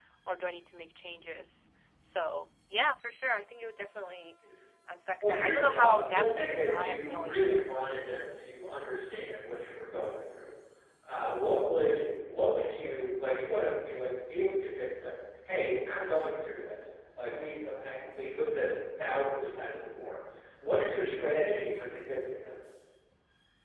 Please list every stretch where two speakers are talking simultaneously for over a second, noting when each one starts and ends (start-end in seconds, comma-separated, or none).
5.2-7.7